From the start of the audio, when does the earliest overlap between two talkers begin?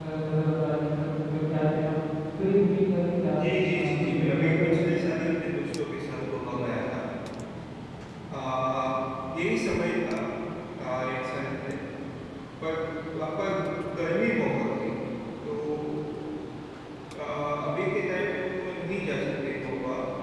3.4 s

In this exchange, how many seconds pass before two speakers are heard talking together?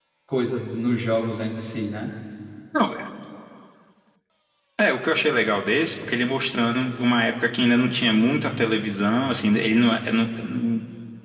none

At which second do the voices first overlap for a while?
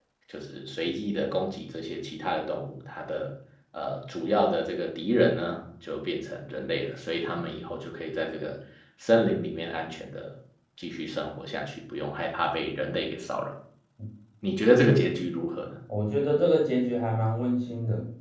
none

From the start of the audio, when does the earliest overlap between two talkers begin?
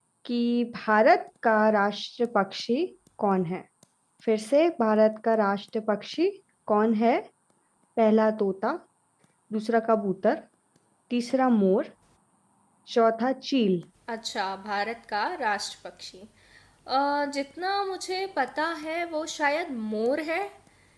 none

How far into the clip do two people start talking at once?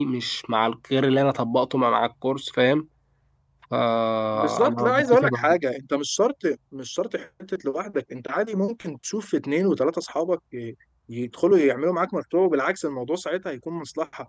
4.3 s

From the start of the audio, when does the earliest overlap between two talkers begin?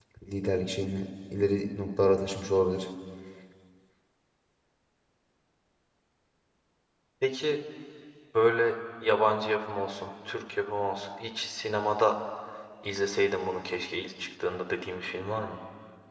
none

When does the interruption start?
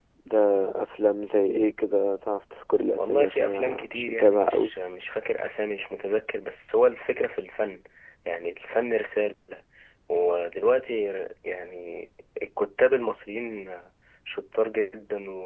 3.0 s

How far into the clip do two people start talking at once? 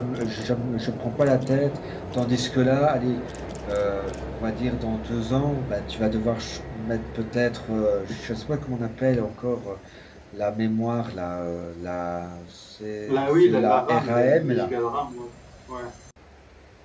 13.1 s

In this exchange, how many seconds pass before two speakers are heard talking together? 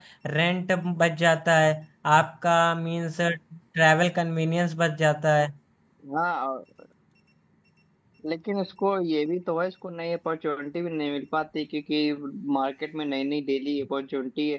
none

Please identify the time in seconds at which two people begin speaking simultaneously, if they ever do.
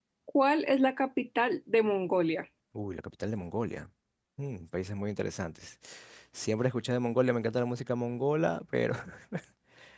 none

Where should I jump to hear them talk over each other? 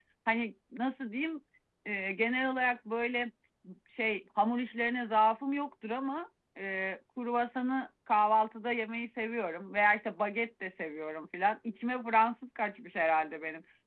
none

